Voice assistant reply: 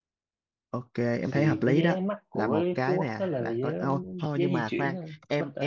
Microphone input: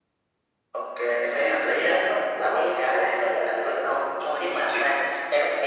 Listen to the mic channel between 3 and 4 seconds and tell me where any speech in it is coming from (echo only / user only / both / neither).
echo only